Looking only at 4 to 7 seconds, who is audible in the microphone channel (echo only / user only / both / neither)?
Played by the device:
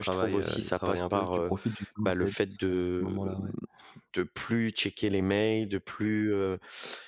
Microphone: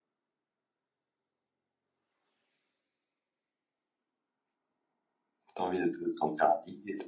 user only